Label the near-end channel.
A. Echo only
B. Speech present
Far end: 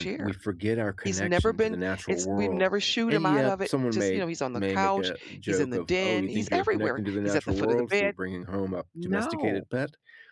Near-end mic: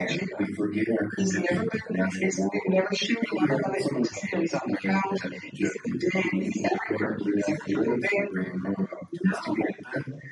A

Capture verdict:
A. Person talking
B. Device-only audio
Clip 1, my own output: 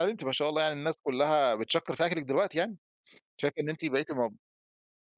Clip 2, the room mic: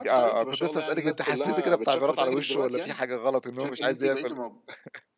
A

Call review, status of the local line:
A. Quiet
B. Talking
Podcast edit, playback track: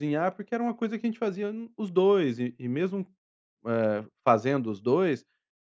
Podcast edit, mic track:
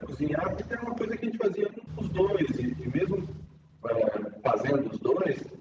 A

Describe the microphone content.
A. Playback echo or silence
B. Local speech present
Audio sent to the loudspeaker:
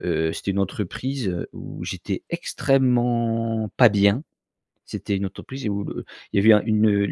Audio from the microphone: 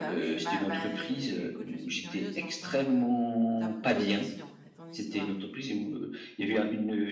B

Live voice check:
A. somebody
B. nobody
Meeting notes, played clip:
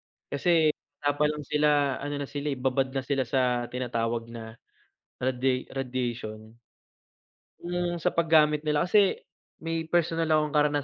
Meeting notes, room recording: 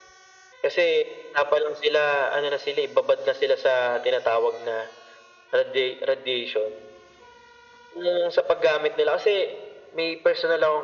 B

